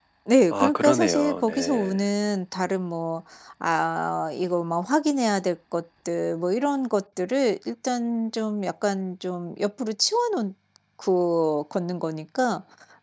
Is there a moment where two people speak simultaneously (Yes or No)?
Yes